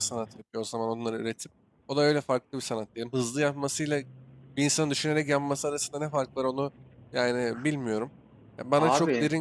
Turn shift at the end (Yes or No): No